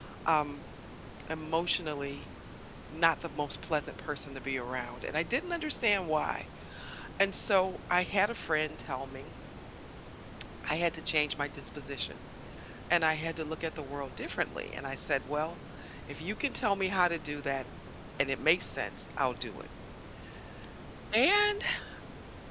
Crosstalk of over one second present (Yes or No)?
No